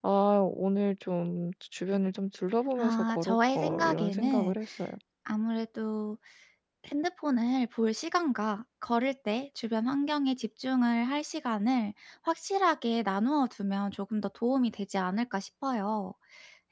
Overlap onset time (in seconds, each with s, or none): 2.8 s